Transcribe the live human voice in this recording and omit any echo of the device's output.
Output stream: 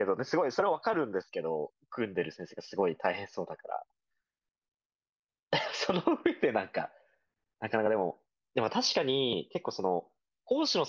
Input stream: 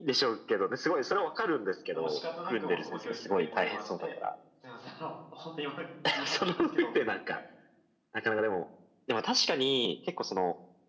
もう仕方なくもうその教室でお電話して、すいません、あの、本当に今、向かってるんですけどって言って、

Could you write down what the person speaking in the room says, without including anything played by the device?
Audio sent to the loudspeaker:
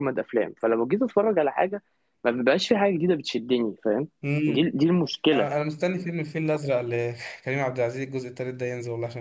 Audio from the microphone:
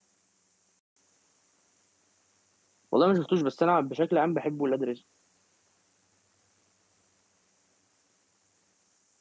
والله ما شفتوش بس انا بشكل عام بحب ولاد رزق

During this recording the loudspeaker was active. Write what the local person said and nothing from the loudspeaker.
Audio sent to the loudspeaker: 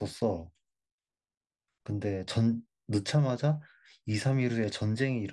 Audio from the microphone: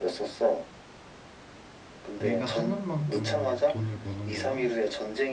내가 하는 만큼 돈을 버는 거야?

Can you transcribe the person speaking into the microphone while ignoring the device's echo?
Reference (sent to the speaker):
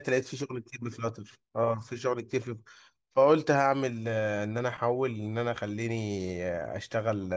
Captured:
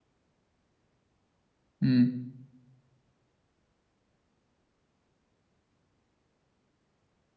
مم.

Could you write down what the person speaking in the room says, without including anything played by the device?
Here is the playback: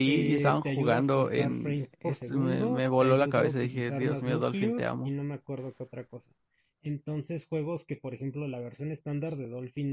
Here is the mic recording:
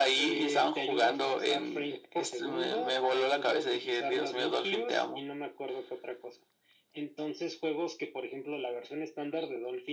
none

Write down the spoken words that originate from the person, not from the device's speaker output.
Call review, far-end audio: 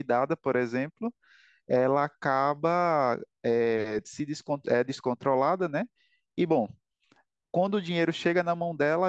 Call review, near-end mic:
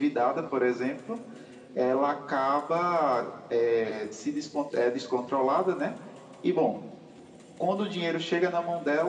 none

